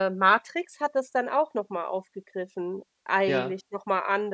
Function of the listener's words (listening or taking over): listening